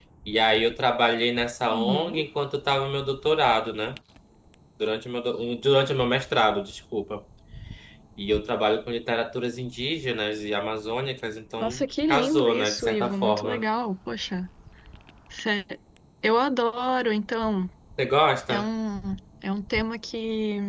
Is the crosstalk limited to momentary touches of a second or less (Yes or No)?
No